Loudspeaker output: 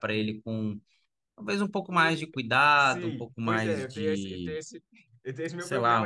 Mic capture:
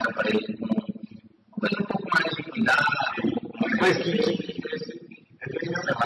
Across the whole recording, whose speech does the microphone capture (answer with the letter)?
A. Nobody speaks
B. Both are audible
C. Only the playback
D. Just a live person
B